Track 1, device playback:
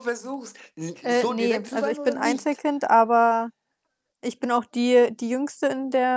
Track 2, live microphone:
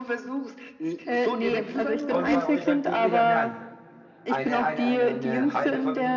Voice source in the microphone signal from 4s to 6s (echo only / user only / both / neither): both